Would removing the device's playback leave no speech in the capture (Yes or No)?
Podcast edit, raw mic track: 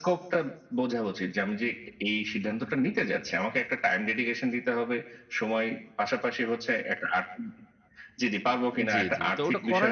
No